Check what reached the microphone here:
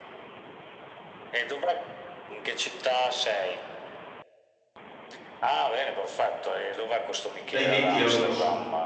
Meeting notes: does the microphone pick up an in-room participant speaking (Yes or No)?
Yes